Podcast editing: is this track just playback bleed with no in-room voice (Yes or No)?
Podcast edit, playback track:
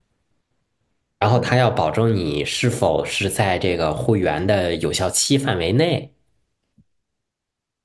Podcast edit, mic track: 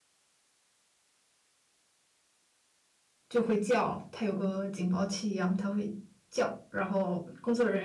No